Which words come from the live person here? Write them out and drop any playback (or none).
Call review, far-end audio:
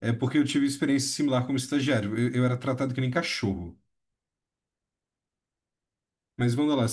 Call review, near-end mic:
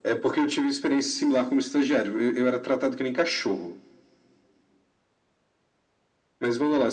none